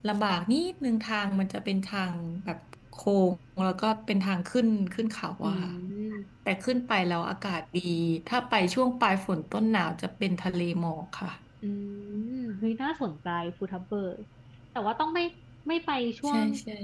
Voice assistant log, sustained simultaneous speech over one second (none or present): none